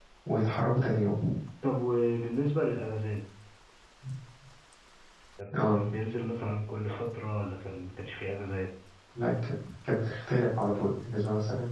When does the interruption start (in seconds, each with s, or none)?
none